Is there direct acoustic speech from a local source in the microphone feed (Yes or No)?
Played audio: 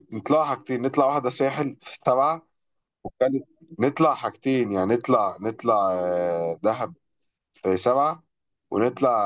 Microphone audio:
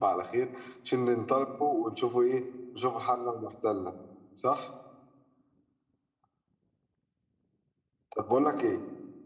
Yes